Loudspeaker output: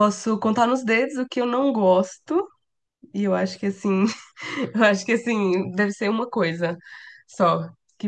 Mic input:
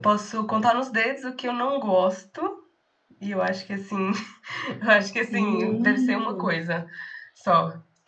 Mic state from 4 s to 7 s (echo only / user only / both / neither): both